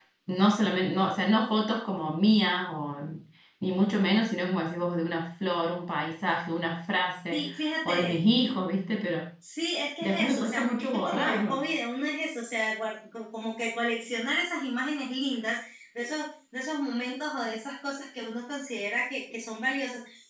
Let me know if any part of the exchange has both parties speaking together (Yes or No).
Yes